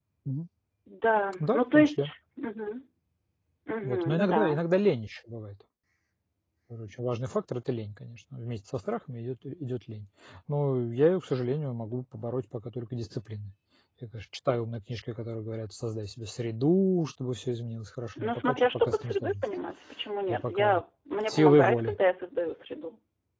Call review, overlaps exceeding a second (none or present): present